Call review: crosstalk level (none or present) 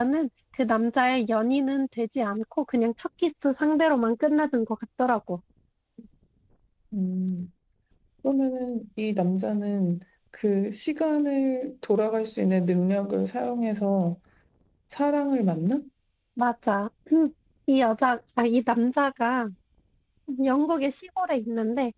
none